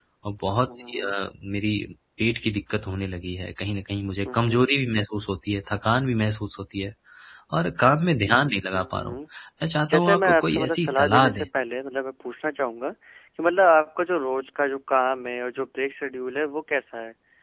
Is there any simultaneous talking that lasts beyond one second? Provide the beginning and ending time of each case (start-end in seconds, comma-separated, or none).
9.9-11.4